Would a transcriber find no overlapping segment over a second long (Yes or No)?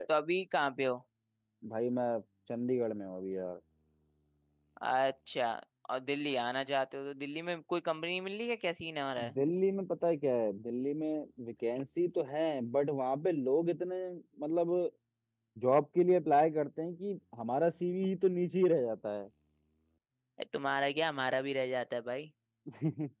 Yes